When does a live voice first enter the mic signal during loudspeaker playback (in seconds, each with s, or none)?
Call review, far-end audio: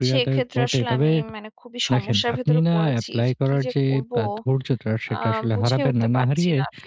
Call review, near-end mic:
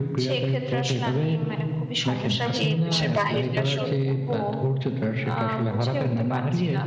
2.5 s